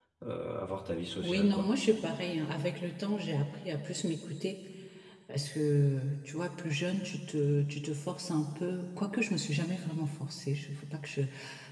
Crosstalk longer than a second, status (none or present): none